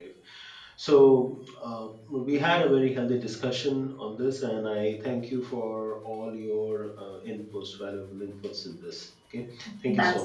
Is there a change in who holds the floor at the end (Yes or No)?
Yes